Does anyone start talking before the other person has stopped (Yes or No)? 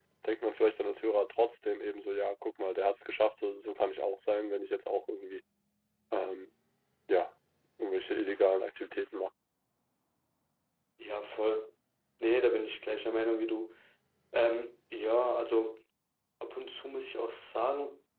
No